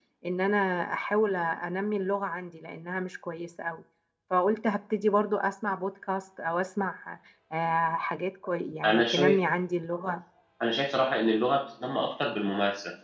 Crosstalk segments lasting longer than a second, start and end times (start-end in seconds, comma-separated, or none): none